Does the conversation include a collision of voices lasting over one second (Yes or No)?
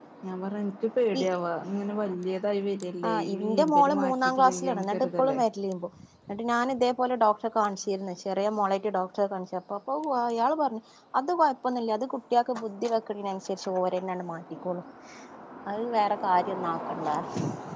Yes